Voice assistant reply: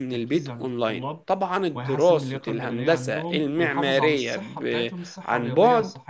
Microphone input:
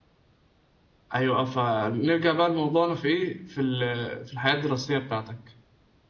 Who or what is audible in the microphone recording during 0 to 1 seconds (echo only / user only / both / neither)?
neither